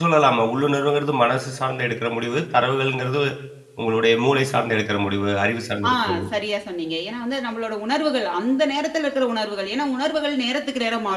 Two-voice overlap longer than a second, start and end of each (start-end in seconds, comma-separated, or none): none